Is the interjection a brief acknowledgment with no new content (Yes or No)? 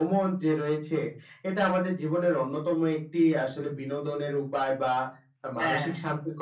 Yes